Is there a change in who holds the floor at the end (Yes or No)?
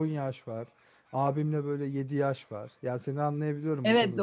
Yes